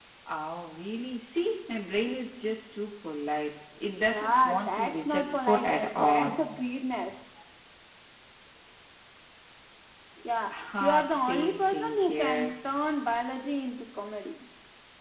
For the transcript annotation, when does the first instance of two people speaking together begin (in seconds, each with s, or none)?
4.1 s